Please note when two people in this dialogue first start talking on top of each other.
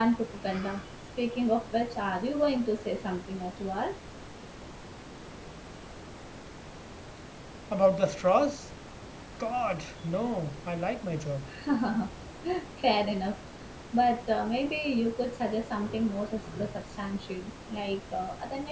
none

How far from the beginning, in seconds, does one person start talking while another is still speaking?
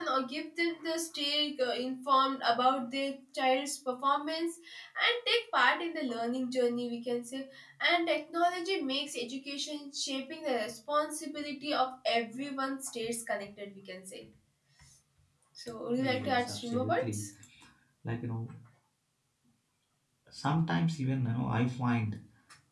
16 s

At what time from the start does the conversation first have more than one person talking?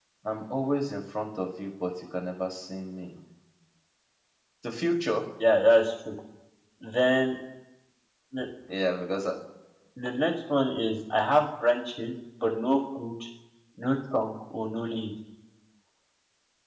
none

